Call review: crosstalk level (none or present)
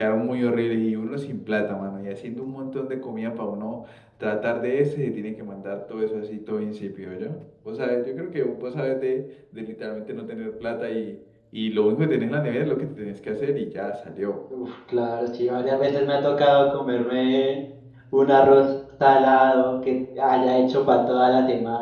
none